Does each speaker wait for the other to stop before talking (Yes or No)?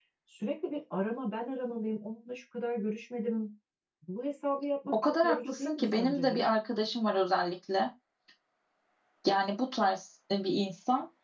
No